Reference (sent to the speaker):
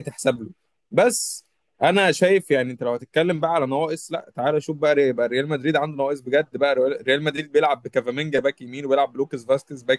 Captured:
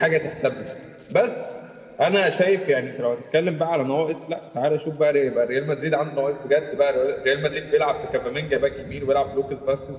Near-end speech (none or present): none